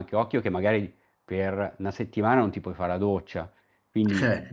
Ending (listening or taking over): listening